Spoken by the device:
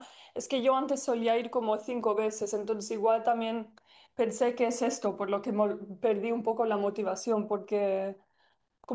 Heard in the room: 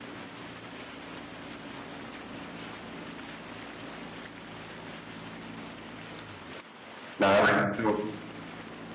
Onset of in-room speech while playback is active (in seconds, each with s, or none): 7.2 s